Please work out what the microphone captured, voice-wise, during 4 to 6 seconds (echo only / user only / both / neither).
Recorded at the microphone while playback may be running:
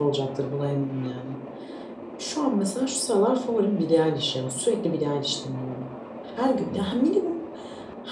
user only